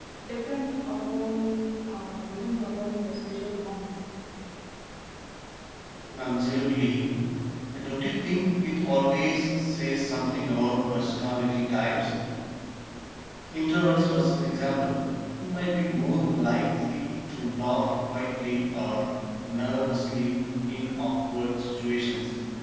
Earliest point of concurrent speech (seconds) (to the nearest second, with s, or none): none